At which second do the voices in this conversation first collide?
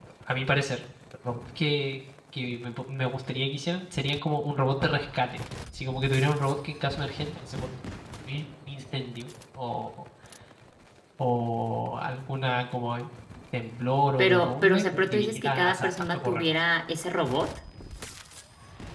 14.2 s

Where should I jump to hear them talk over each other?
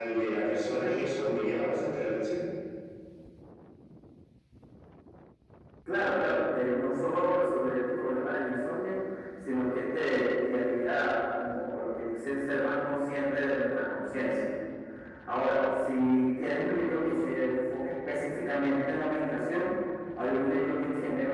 none

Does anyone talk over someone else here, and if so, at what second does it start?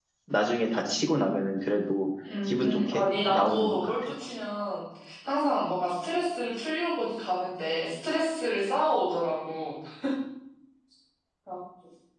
2.2 s

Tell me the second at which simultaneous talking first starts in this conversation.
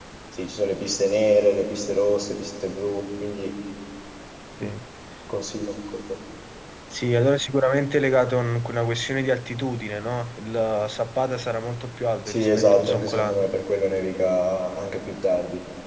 12.3 s

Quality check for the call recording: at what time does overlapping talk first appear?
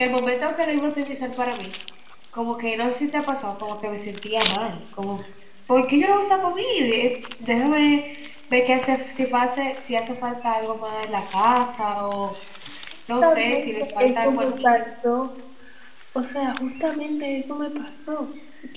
13.2 s

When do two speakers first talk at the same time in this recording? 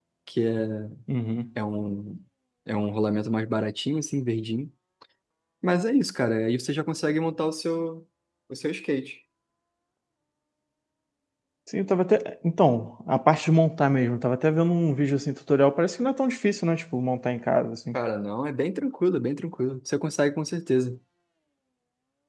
none

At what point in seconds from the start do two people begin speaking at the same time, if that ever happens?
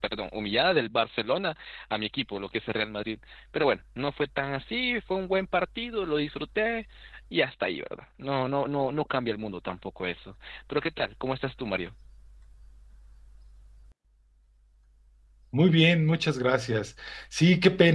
none

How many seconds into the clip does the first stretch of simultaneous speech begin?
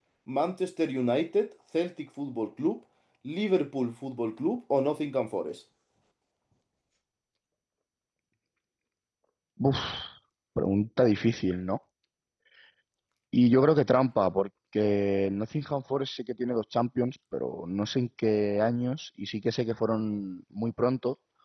none

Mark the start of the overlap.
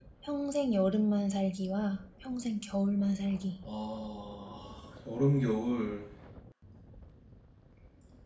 none

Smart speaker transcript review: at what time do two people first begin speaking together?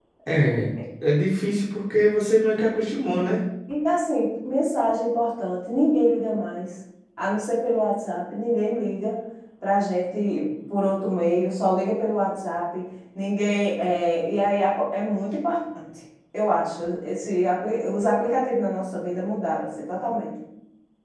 none

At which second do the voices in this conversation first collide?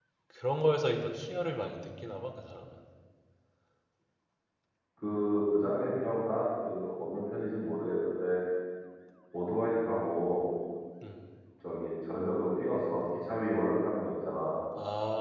none

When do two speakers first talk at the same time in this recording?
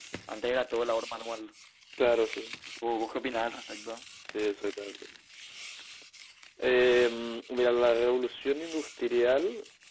none

